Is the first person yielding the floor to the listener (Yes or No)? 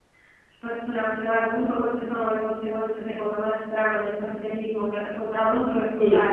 No